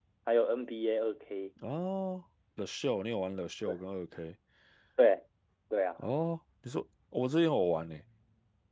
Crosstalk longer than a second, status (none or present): none